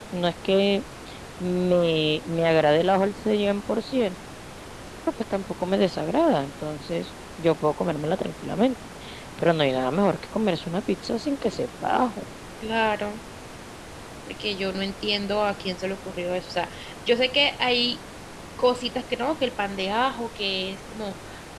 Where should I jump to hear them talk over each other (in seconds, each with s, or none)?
none